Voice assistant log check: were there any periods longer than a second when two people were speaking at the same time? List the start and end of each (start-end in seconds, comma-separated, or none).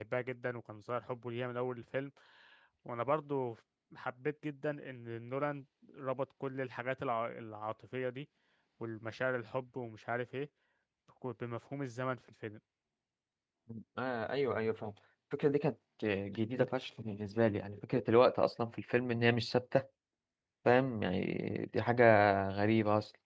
none